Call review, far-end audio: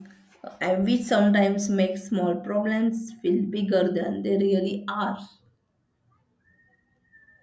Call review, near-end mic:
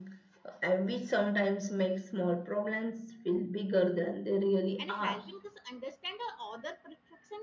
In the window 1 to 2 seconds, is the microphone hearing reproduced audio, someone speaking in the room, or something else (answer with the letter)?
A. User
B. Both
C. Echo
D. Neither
C